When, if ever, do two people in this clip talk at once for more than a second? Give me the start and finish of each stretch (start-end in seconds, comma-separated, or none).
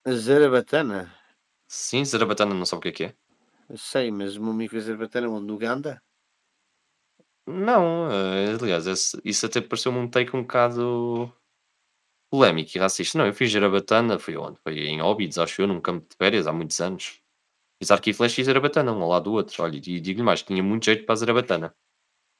none